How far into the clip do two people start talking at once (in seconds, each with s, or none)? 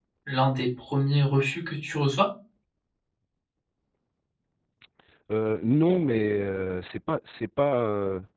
none